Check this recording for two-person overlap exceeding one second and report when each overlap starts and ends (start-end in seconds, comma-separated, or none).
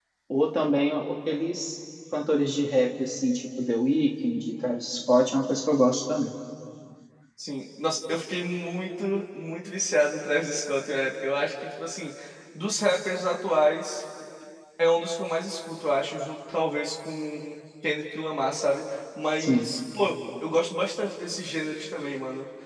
none